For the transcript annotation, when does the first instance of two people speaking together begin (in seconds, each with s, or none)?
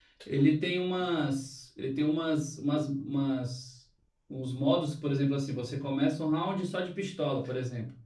none